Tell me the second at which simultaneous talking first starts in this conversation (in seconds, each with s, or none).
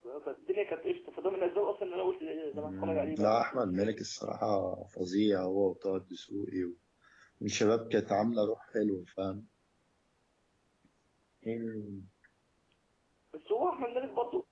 2.5 s